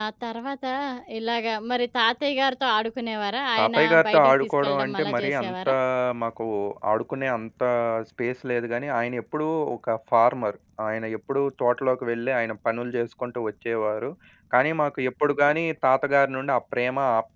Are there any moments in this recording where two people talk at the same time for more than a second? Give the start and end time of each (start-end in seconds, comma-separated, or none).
3.6-5.7